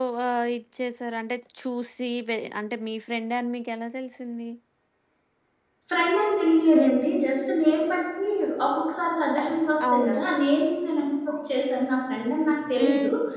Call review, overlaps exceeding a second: none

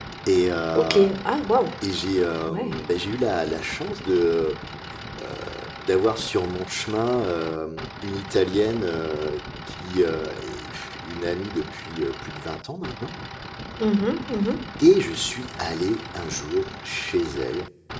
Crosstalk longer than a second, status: none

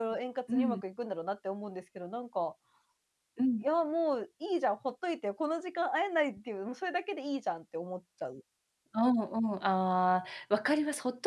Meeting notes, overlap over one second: none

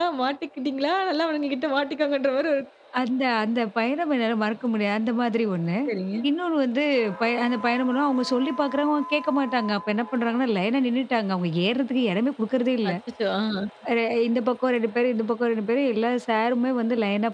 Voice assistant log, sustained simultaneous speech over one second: none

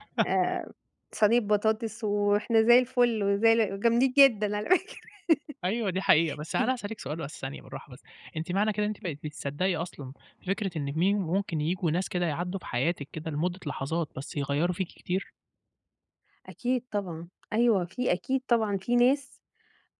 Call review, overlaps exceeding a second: none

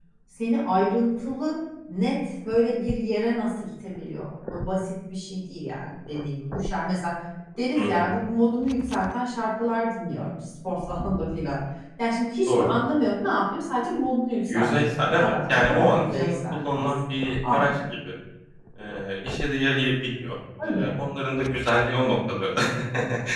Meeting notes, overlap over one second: present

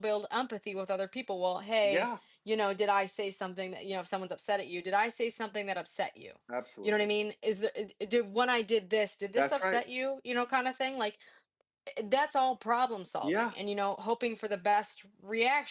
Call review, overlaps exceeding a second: none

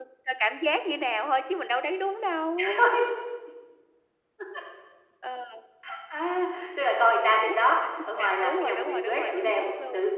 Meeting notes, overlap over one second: present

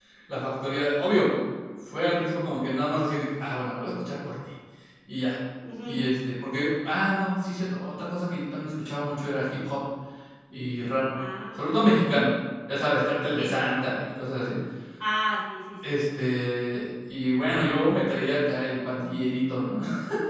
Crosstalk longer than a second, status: none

